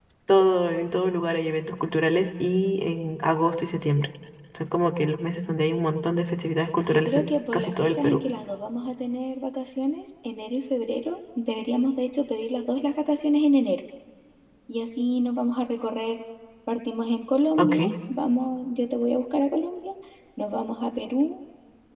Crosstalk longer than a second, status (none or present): present